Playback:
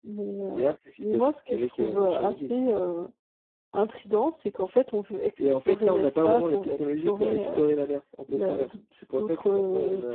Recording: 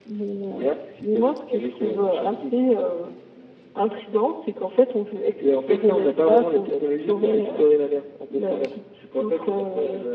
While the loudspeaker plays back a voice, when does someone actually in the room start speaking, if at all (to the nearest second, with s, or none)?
none